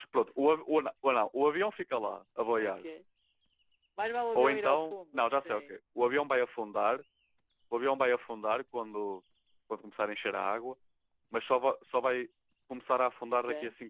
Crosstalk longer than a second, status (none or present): present